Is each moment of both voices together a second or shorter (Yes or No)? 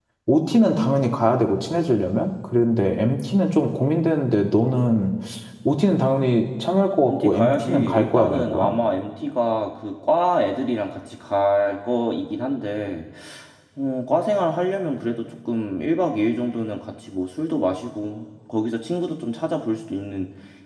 No